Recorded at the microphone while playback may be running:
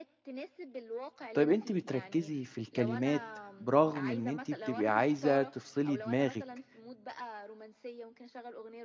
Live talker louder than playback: Yes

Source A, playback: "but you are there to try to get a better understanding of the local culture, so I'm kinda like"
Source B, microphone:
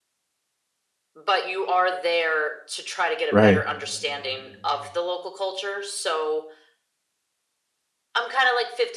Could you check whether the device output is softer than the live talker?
Yes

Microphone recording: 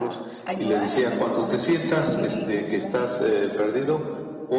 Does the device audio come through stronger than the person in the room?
Yes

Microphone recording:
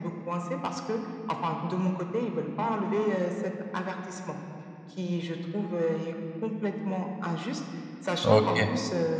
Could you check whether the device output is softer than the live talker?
Yes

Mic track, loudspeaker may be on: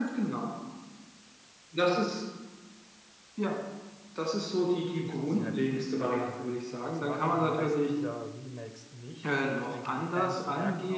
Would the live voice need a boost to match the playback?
Yes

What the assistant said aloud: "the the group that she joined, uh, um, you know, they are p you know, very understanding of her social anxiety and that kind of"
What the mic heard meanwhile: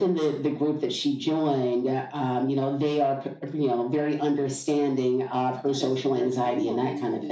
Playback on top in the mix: Yes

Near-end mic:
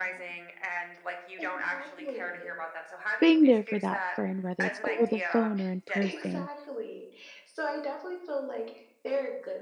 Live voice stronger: Yes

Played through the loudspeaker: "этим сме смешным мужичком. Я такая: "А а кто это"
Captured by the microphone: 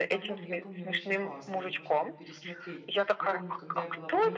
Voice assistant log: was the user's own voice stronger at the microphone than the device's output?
No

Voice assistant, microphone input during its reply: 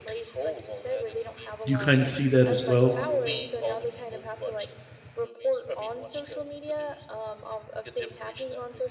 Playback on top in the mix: No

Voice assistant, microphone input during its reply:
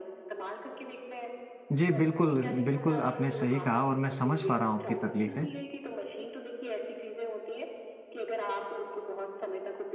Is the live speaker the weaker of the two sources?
No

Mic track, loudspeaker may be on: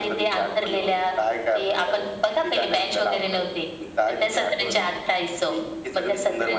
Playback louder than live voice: Yes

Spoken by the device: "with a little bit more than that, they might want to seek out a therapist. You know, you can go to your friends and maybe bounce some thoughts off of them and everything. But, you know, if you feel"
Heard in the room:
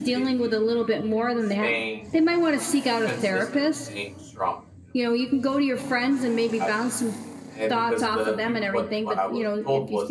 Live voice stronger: No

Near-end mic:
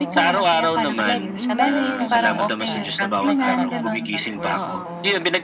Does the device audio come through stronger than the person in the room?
Yes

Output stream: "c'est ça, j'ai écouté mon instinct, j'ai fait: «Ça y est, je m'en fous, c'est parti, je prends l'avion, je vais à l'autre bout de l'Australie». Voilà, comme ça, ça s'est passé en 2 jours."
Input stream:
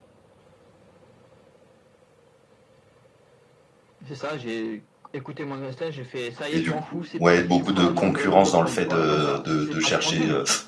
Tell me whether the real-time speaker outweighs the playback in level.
Yes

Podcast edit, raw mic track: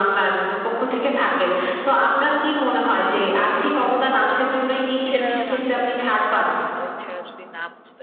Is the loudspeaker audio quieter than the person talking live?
No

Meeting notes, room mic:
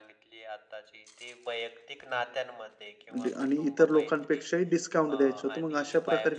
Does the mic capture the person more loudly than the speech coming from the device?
Yes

